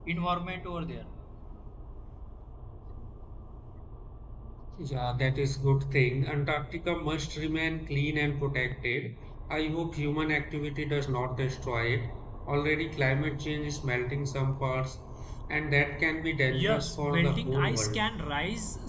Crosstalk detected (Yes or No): Yes